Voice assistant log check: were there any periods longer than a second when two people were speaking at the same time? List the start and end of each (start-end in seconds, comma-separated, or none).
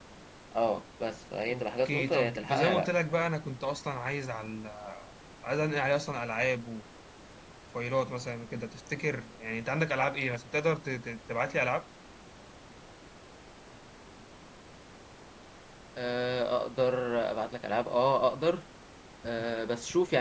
1.5-2.9